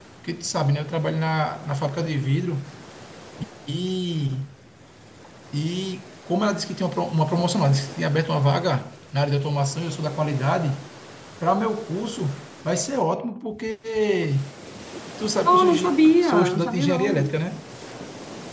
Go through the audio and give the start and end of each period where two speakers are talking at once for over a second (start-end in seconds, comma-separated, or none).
15.5-17.3